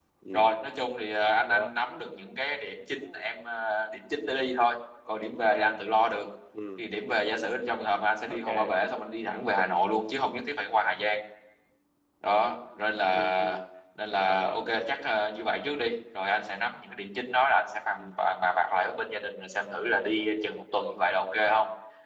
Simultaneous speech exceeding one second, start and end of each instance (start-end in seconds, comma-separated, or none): none